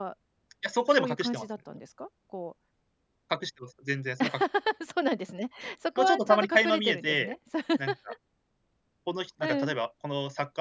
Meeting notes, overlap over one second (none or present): present